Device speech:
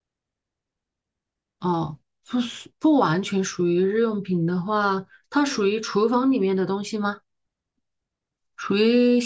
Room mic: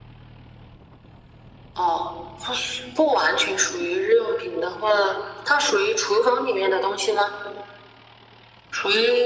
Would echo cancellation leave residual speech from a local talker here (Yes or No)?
No